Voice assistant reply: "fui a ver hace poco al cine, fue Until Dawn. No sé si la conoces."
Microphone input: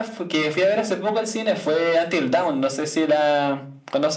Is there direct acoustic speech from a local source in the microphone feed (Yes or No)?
No